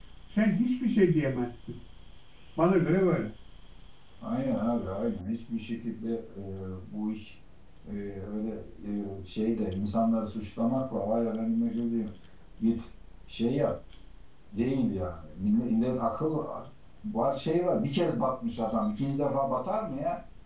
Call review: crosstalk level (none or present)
none